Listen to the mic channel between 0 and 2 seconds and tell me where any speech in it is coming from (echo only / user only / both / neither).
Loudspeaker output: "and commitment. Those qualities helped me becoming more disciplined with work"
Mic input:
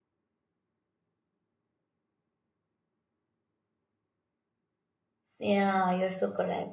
neither